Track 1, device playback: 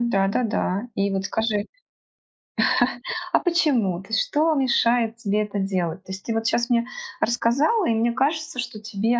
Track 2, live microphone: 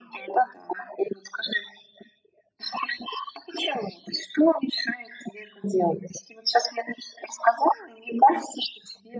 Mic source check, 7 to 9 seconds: echo only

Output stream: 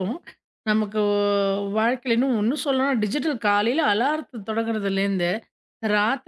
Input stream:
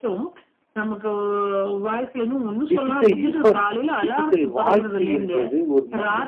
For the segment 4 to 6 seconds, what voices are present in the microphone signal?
both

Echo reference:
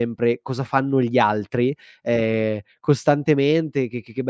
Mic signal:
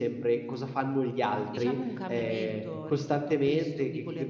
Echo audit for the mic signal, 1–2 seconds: both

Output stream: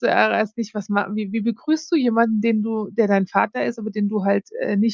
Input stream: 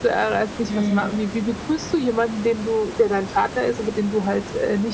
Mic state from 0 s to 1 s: both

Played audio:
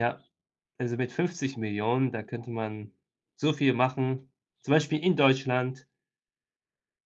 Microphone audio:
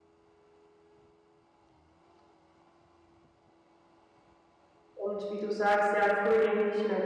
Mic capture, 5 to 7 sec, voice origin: user only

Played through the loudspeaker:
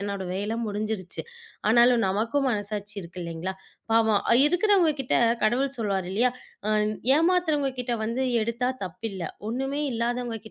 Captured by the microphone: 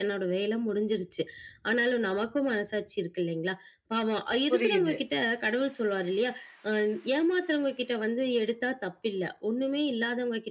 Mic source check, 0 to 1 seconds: echo only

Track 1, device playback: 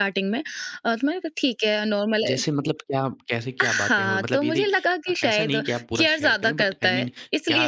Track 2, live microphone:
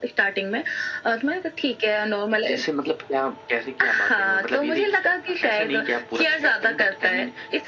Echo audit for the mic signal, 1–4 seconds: echo only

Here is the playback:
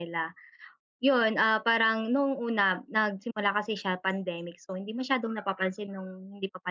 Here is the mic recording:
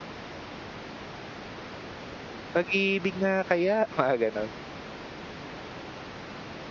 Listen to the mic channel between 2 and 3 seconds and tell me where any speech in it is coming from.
user only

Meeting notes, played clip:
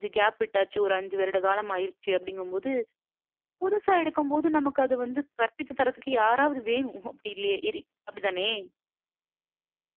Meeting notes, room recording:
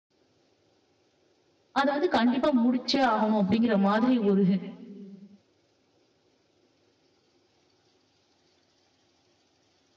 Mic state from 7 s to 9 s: neither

